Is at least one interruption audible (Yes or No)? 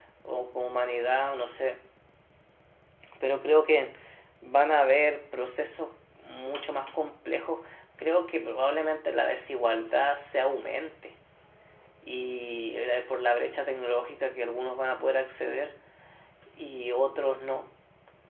No